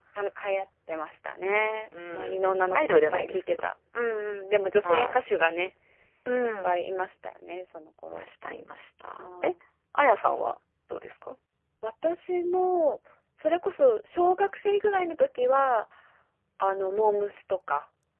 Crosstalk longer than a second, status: present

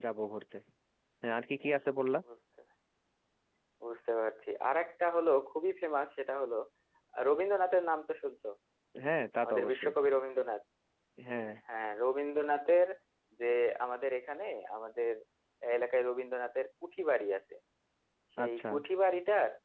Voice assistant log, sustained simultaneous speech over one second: none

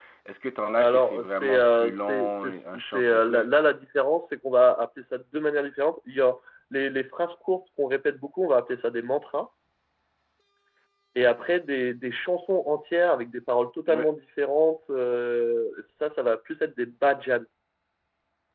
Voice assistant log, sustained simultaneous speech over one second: present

